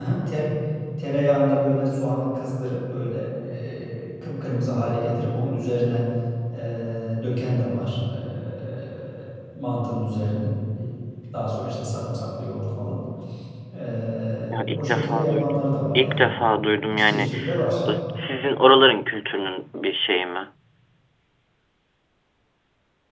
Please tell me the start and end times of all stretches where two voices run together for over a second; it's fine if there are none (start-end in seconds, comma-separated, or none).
14.5-16.3